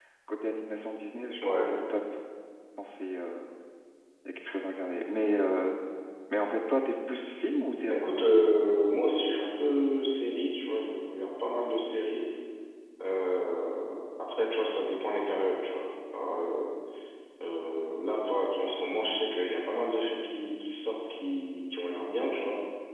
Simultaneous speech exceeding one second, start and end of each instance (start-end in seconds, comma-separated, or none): none